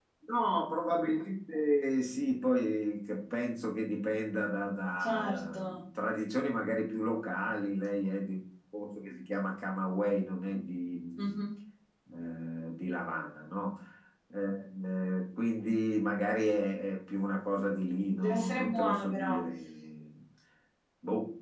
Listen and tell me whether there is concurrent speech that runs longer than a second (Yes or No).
Yes